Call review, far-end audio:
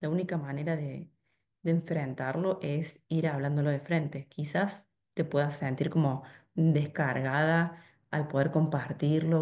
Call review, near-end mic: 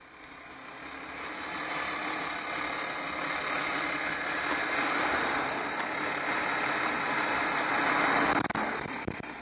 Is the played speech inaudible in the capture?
Yes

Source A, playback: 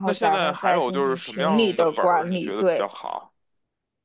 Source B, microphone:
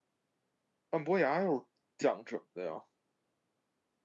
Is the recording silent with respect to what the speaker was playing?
Yes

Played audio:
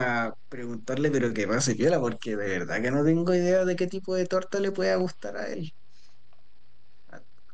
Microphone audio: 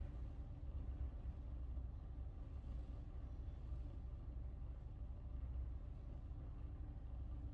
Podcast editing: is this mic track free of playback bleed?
Yes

